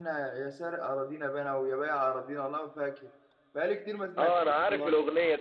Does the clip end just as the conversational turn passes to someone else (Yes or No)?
Yes